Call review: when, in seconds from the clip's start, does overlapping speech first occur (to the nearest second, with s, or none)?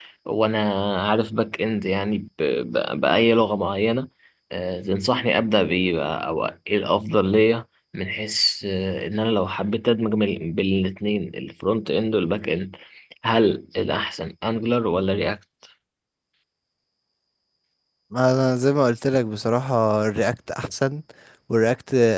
none